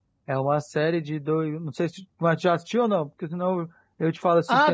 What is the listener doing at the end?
taking over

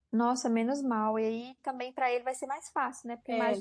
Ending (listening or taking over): listening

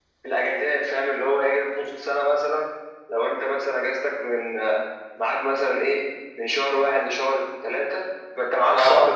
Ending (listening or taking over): listening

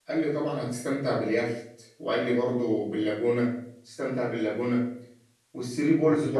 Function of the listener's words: listening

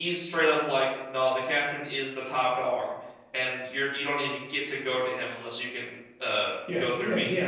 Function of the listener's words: taking over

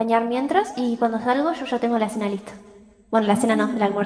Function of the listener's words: taking over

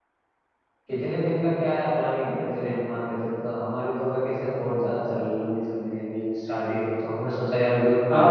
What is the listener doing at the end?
taking over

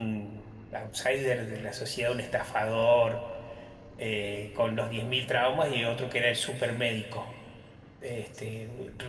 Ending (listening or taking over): listening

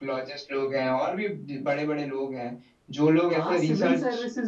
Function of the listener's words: taking over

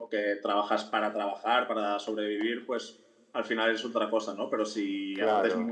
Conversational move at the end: listening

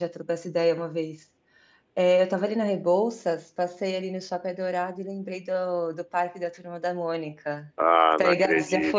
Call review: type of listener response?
taking over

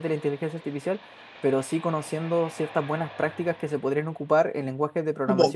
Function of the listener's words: taking over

